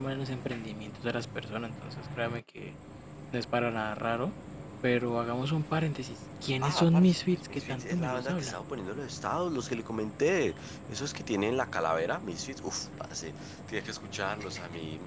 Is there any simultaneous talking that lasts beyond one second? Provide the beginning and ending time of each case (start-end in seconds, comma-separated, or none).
6.6-8.6